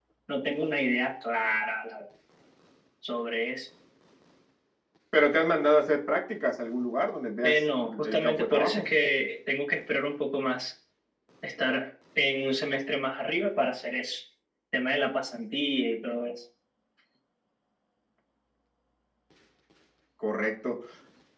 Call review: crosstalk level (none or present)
present